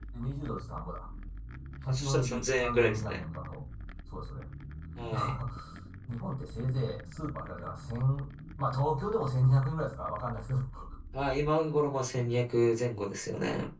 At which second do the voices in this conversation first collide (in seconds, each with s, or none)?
1.9 s